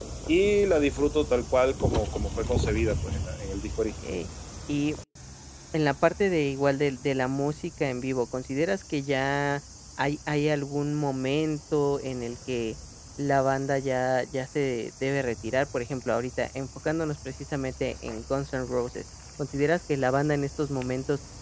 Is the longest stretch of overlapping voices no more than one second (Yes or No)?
Yes